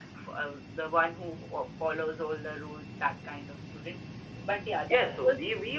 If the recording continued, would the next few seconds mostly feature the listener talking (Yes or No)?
Yes